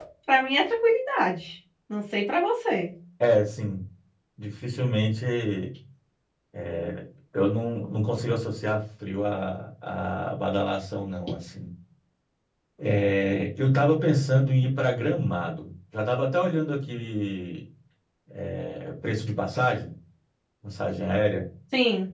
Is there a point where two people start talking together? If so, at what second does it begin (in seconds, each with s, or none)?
none